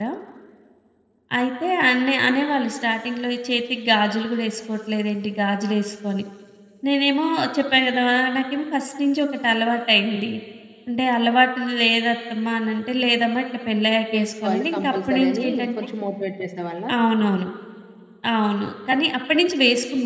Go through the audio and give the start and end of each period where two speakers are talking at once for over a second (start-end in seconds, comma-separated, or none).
14.1-15.7